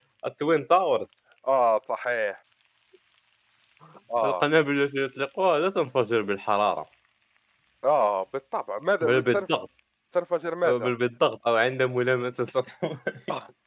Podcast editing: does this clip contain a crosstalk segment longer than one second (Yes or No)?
No